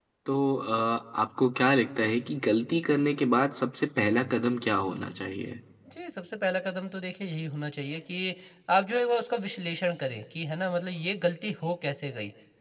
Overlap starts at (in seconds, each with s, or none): none